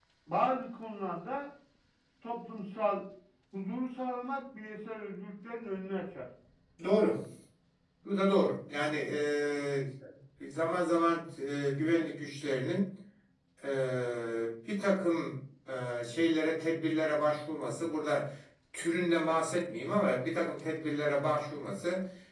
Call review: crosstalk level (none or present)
none